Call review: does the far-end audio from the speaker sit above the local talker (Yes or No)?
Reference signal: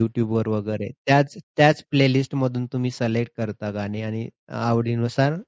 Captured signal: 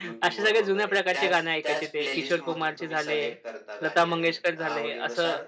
No